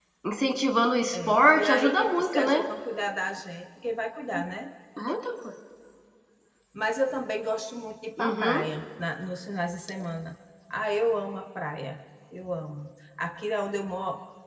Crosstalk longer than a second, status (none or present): present